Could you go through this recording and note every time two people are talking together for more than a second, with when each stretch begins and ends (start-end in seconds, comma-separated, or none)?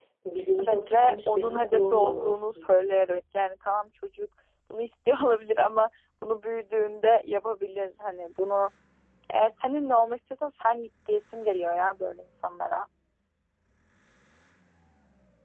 0.6-2.6